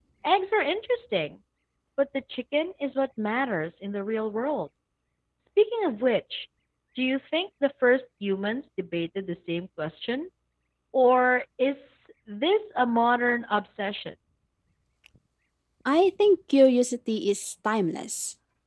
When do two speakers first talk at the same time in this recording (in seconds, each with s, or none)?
none